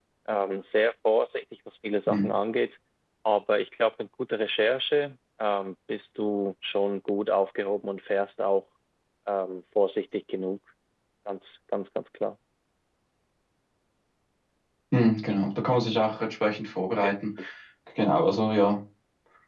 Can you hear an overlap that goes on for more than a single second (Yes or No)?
No